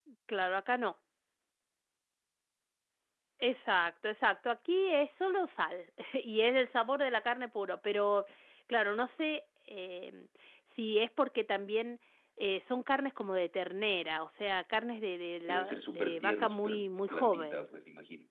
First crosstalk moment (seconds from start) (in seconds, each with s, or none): 15.5 s